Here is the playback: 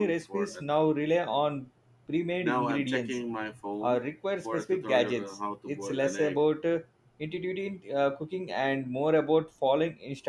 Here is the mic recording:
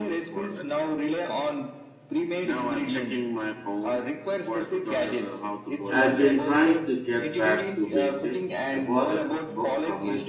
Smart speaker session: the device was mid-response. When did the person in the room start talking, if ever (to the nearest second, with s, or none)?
6 s